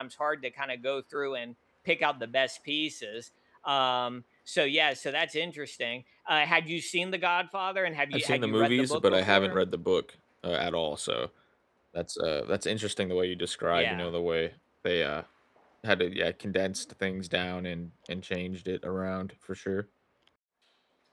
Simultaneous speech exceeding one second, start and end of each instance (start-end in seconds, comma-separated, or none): 8.1-9.6